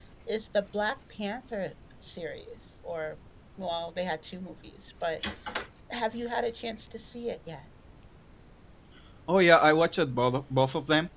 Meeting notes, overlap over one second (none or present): none